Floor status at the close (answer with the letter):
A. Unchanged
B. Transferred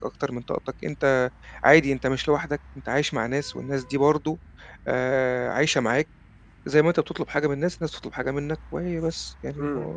B